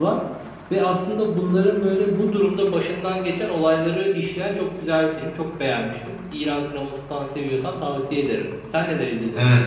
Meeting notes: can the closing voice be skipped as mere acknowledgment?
No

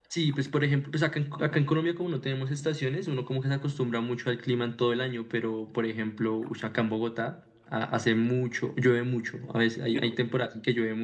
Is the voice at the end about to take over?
No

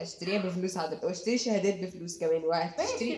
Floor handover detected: Yes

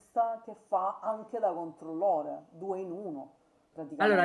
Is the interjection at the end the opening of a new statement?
Yes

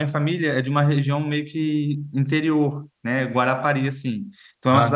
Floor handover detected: No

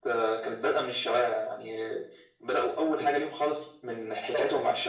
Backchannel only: Yes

